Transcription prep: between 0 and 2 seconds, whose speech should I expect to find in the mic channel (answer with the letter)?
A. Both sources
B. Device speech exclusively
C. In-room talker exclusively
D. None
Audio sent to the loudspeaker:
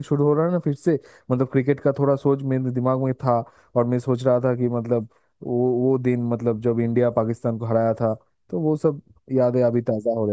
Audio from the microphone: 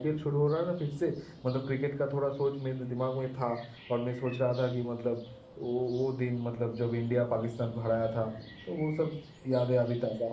B